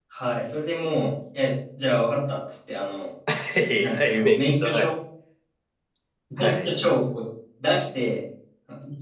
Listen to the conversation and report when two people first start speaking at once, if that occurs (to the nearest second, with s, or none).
4 s